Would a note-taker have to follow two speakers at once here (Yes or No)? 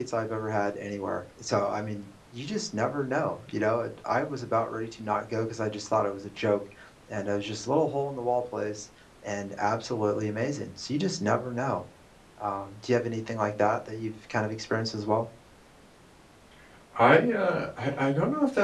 No